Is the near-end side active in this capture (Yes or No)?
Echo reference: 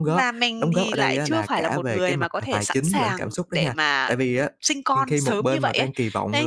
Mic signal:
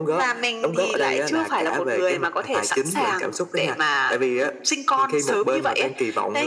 No